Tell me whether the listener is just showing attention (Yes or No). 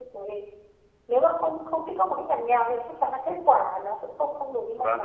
No